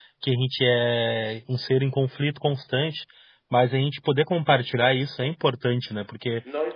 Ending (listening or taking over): taking over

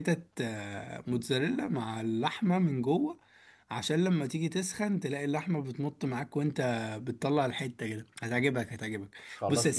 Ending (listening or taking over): taking over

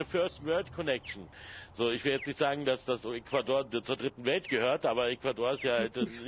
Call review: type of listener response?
listening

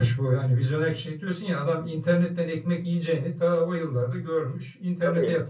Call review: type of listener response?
taking over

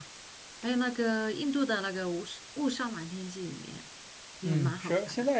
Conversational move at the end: taking over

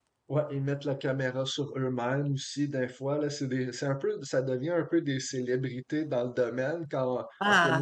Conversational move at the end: listening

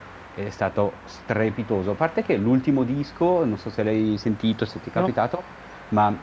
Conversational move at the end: listening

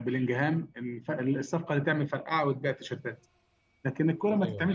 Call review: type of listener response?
listening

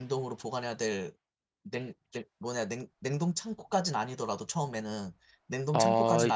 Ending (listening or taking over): taking over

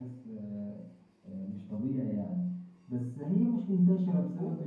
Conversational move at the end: listening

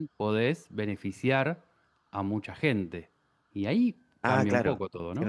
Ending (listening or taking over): taking over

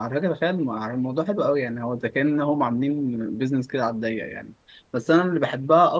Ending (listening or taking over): listening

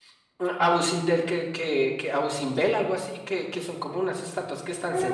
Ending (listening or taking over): taking over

